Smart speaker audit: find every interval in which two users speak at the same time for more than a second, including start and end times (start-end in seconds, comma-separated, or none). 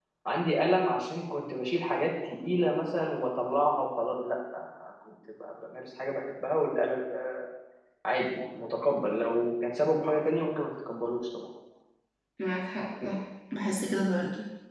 none